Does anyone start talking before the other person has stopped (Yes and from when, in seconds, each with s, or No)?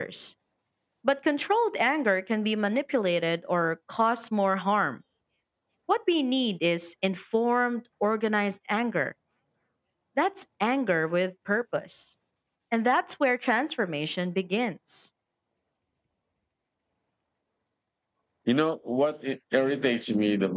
No